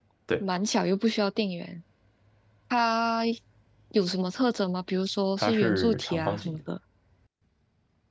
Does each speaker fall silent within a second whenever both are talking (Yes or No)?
No